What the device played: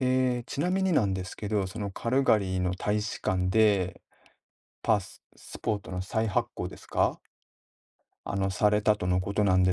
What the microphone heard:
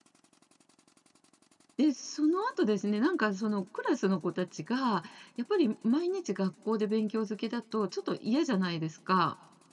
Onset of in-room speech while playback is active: 2 s

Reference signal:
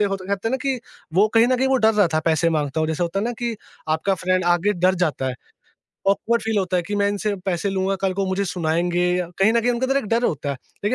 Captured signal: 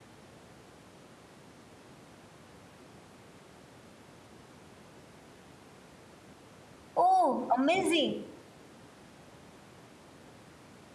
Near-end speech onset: 7 s

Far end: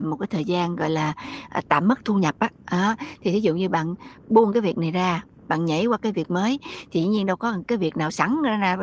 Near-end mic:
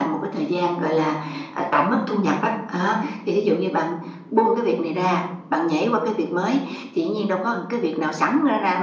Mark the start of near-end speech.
none

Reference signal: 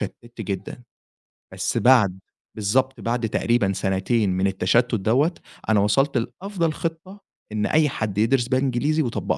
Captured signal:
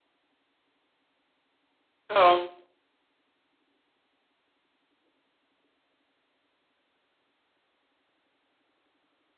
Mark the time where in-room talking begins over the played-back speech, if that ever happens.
2 s

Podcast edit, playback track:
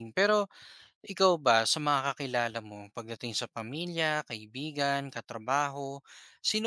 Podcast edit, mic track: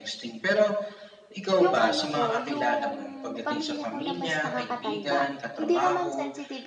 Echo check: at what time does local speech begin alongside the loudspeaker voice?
2 s

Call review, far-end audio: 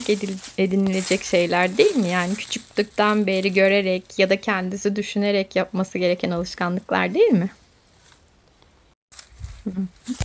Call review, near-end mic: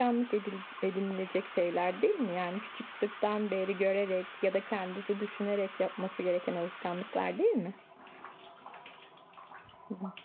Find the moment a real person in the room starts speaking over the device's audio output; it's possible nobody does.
none

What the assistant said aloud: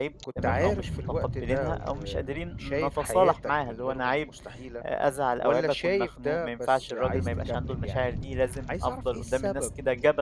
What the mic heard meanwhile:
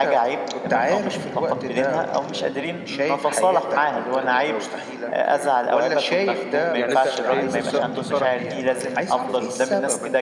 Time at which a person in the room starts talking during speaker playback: 4 s

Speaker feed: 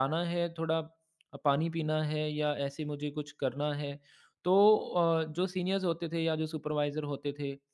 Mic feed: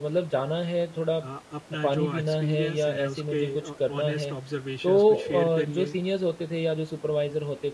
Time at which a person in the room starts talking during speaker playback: 1 s

